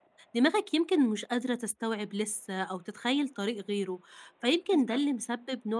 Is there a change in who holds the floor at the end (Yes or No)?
No